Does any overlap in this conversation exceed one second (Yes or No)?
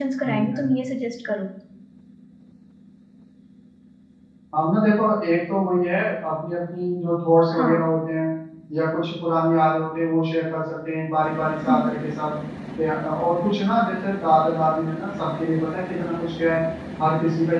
No